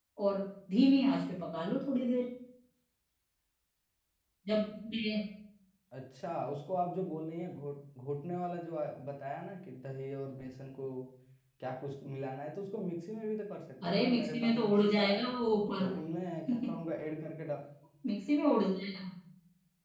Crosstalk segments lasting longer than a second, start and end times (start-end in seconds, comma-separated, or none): 13.8-15.3